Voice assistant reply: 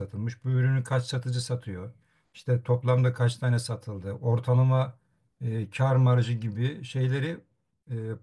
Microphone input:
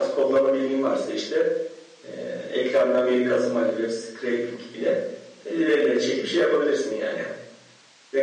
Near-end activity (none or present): present